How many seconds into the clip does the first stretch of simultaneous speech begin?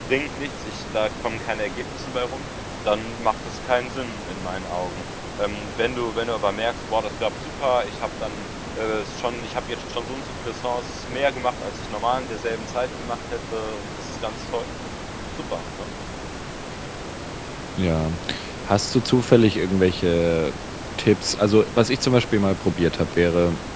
none

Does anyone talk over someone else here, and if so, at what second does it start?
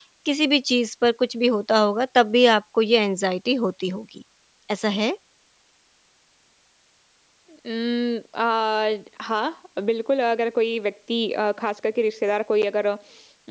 none

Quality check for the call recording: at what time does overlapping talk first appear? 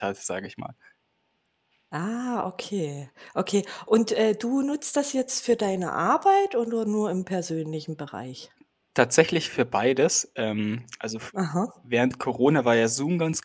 none

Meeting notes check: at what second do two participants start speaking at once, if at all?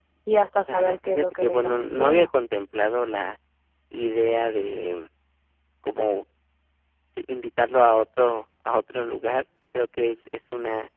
0.7 s

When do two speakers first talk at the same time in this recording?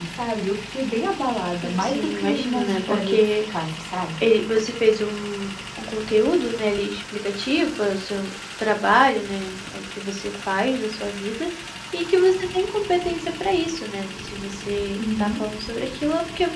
1.6 s

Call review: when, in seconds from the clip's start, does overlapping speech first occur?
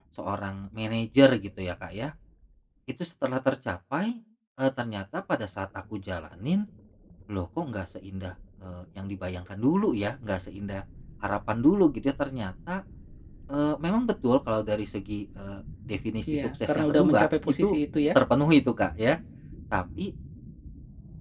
16.3 s

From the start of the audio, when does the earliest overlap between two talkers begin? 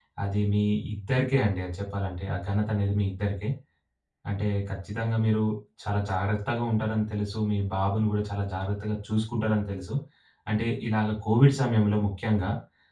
none

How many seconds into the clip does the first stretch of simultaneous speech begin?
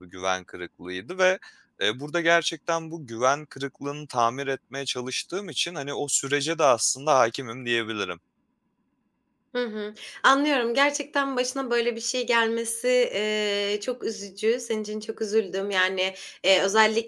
none

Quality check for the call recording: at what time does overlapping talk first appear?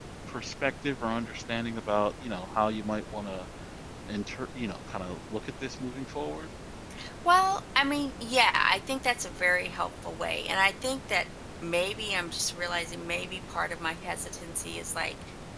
none

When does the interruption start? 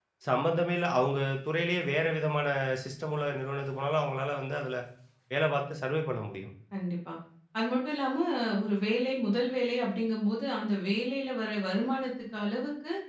none

